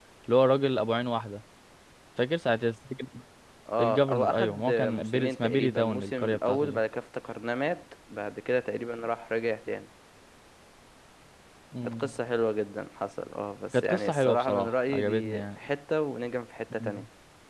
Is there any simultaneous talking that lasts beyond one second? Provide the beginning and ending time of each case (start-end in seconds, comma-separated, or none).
3.8-6.8, 13.7-15.6